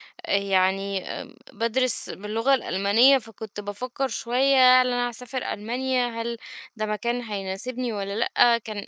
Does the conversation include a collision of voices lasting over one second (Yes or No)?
No